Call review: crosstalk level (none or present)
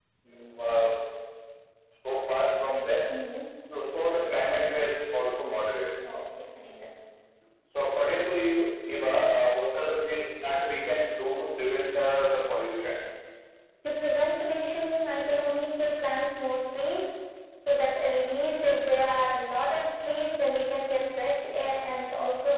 none